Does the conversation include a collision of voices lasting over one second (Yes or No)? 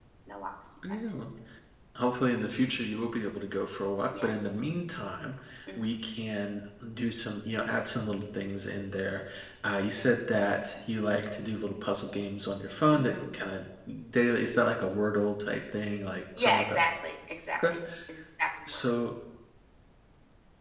No